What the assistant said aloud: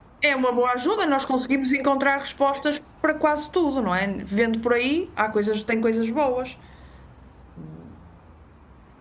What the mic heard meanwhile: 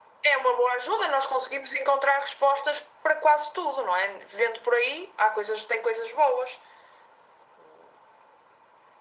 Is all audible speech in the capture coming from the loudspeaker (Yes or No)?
Yes